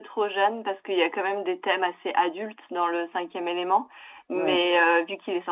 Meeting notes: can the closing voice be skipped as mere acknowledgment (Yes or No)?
Yes